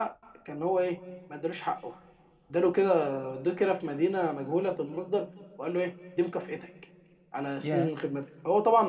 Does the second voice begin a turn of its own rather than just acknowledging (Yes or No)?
No